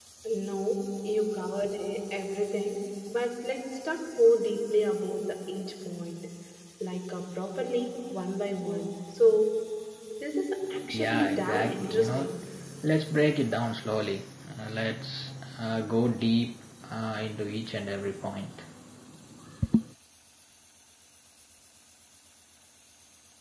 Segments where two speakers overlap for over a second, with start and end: 10.9-12.3

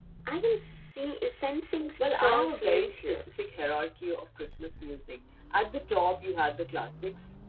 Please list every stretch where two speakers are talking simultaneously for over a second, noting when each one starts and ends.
2.0-3.2

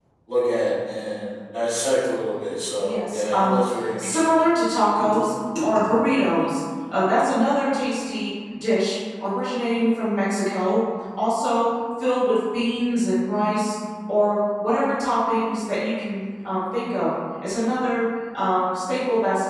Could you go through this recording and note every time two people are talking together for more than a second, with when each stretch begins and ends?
2.8-4.3

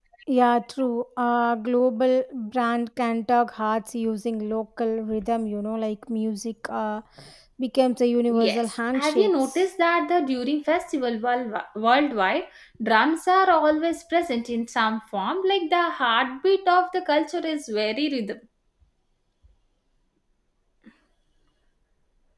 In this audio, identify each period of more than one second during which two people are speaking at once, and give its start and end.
8.3-9.6

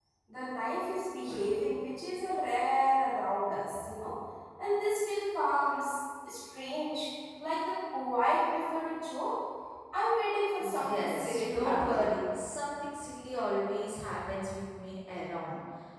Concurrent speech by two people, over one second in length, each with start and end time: 10.6-12.0

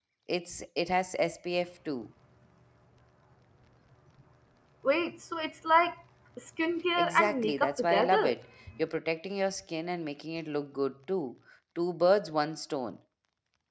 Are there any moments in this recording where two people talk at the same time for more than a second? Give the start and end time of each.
7.0-8.3

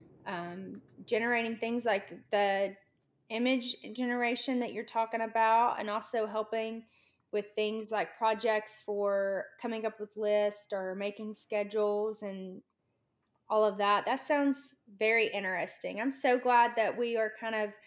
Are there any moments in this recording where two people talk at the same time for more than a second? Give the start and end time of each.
none

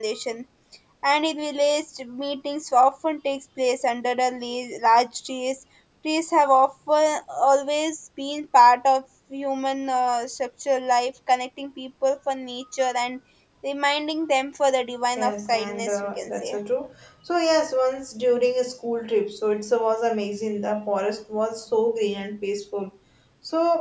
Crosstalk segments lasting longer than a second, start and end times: 15.2-16.6

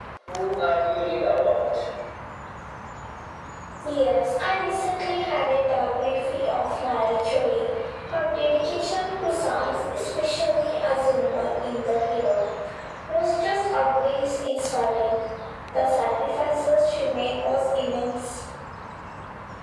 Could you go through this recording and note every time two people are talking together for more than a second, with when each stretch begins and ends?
none

